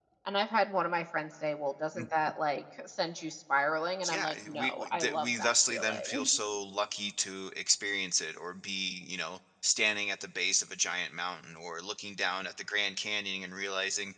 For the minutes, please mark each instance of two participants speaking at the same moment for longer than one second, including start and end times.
4.1-6.3

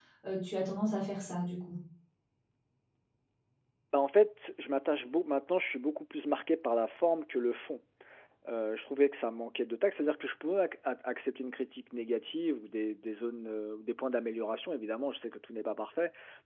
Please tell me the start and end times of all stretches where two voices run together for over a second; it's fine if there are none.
none

